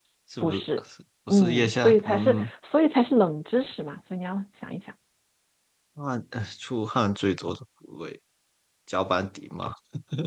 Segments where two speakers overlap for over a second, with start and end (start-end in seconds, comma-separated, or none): 1.3-2.5